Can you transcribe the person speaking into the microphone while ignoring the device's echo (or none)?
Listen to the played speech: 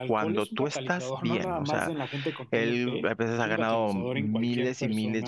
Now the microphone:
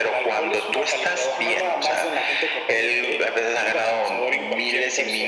none